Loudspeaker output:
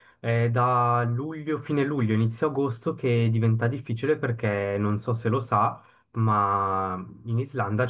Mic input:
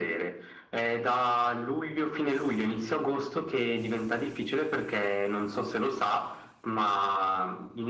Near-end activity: none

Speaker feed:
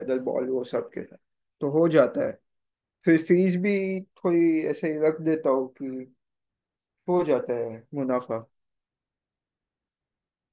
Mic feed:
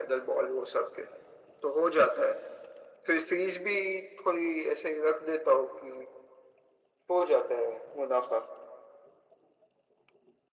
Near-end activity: none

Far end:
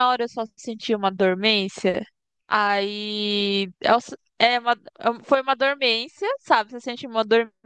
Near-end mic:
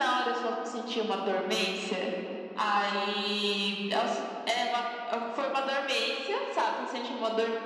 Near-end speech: none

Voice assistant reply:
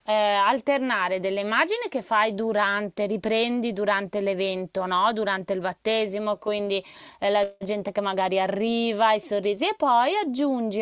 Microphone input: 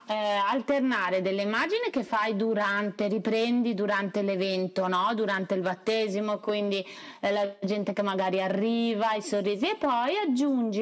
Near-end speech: none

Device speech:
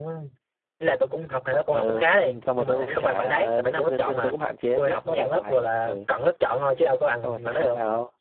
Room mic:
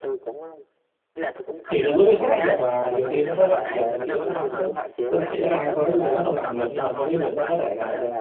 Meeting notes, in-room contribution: present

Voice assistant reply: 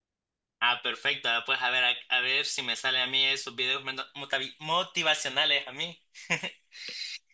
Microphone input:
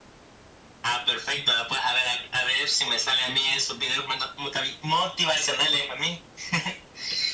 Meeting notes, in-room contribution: none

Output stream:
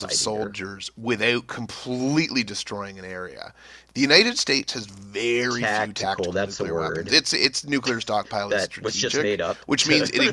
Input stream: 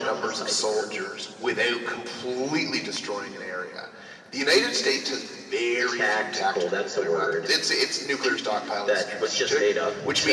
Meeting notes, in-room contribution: none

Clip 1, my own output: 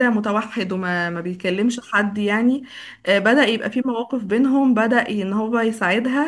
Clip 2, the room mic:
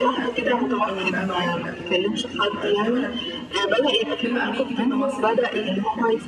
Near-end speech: present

